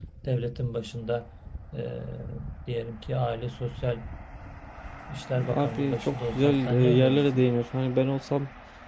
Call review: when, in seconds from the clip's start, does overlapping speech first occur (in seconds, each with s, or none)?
5.5 s